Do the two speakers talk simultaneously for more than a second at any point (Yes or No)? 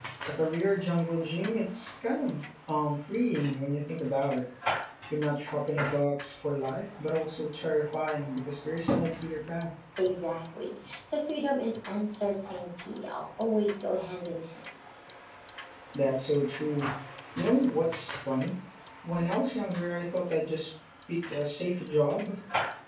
No